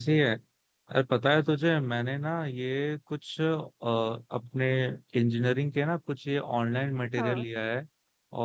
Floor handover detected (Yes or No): No